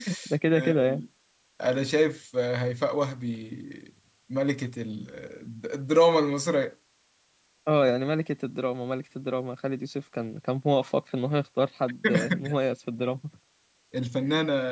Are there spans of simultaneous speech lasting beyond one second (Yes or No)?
No